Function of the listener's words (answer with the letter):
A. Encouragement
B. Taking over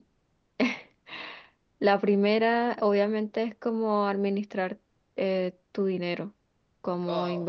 A